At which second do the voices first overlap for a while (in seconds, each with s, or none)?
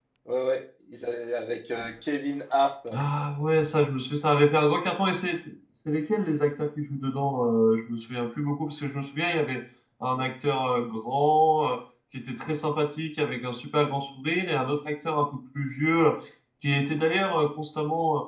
none